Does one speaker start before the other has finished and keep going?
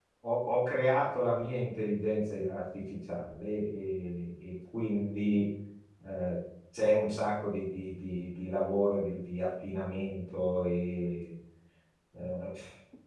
No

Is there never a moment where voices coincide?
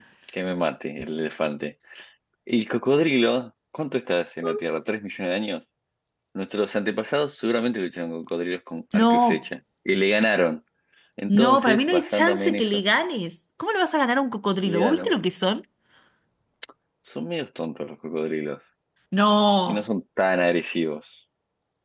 No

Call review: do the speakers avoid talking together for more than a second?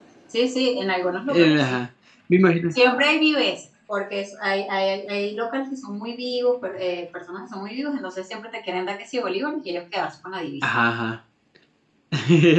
Yes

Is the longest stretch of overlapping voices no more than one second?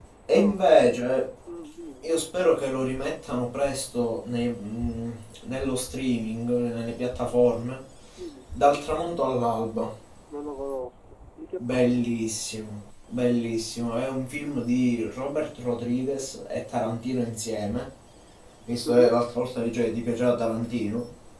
Yes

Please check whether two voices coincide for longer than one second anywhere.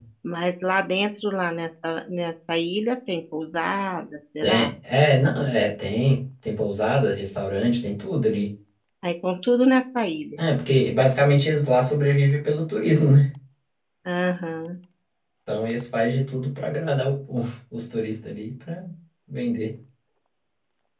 No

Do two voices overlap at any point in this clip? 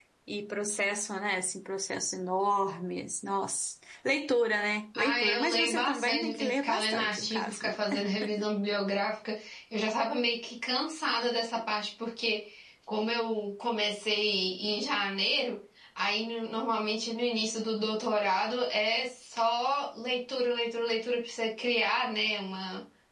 Yes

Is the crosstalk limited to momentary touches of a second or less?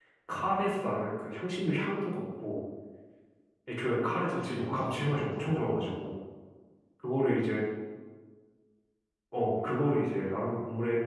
No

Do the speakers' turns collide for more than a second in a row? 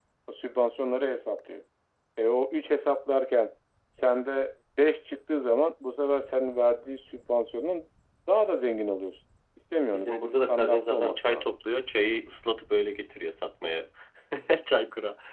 Yes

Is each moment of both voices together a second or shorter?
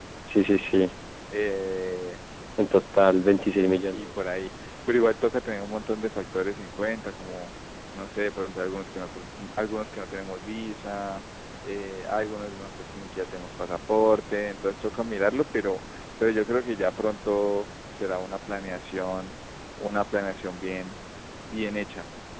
Yes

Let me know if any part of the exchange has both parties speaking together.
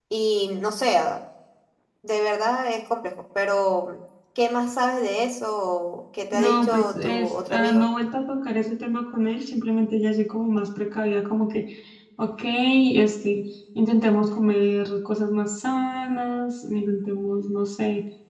Yes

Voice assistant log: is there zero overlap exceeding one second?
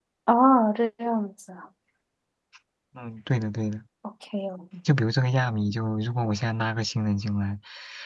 Yes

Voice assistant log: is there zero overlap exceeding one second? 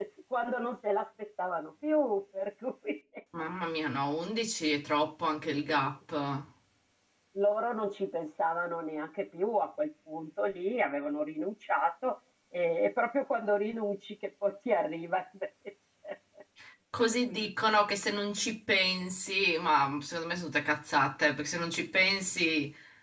Yes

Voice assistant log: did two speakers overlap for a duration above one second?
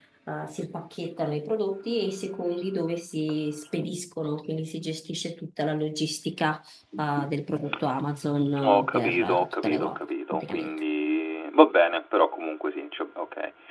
Yes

